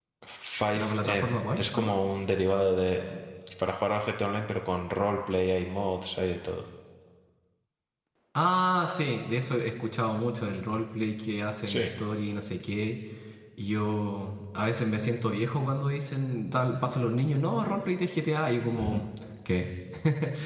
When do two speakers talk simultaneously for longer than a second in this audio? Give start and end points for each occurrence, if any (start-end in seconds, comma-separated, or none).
0.8-2.0